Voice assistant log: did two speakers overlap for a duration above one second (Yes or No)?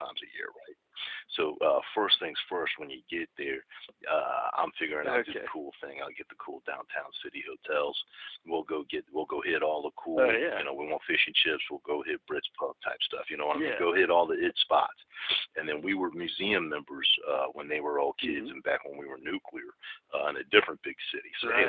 No